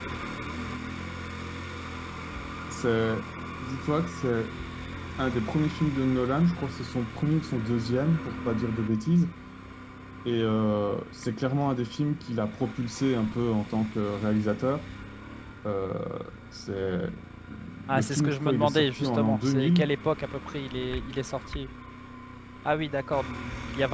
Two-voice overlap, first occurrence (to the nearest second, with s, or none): 18 s